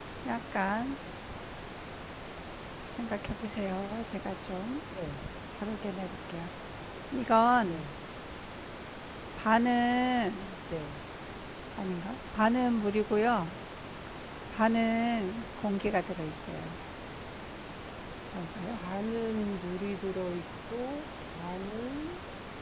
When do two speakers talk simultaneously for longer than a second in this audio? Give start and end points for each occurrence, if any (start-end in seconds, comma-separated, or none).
none